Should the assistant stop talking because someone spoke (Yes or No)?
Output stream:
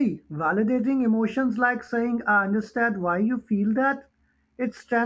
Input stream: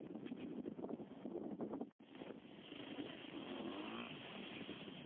No